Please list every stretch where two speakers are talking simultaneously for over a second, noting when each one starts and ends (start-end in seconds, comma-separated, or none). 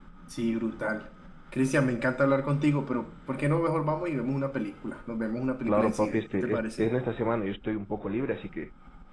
5.7-6.9